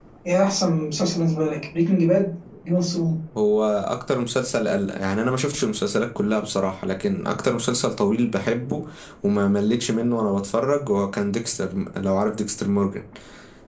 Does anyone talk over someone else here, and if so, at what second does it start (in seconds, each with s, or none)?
none